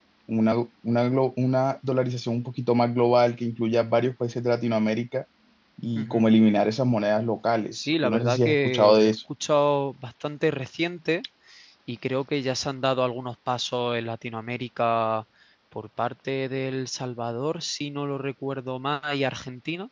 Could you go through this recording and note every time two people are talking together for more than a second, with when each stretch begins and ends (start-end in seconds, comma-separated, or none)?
7.7-9.1